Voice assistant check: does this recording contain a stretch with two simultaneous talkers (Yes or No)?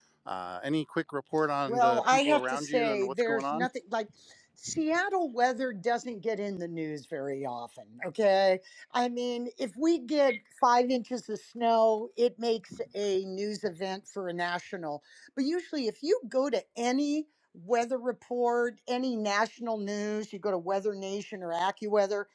Yes